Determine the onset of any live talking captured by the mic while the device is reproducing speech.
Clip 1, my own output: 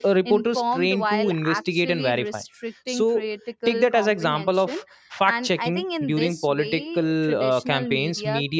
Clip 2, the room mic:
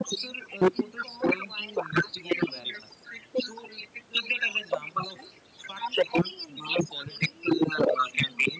none

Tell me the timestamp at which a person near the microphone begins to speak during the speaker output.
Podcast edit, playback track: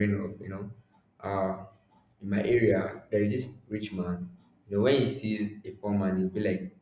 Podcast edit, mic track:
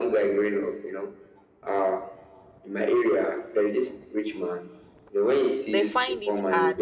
5.7 s

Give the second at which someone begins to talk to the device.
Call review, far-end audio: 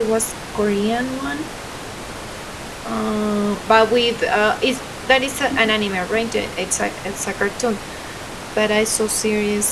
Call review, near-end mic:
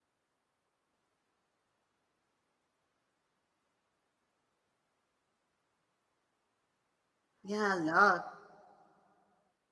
7.4 s

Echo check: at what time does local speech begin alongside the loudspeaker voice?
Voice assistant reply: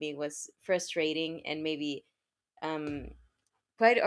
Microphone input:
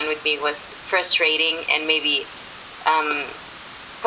none

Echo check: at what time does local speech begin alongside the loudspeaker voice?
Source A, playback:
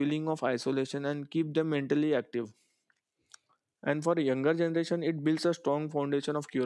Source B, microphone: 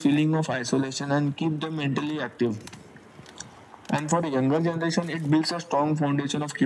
none

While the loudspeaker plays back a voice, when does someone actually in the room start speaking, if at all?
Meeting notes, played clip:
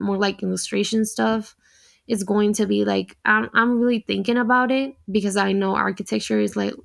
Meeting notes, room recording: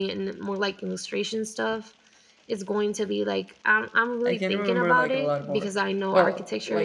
4.2 s

